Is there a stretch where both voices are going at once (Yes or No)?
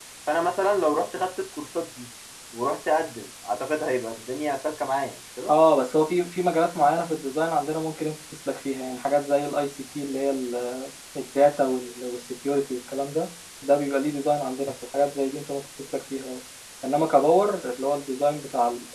No